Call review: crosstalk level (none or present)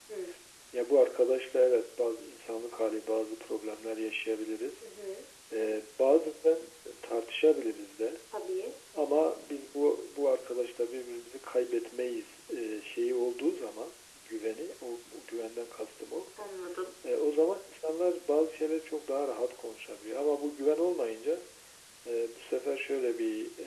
none